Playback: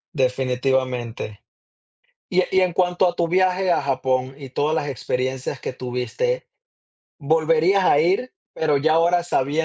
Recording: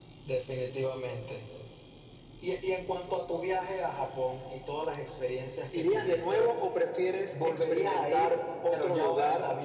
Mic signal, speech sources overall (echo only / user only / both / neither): both